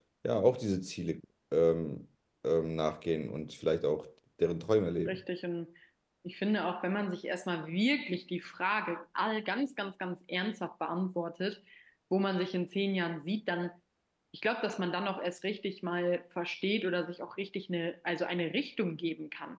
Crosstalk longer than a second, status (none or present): none